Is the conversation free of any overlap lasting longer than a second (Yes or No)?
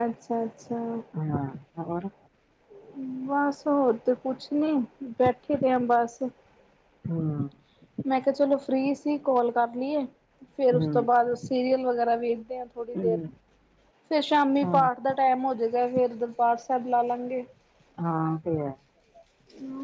Yes